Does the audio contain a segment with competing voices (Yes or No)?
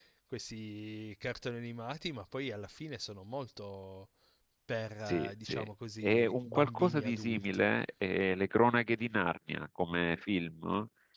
Yes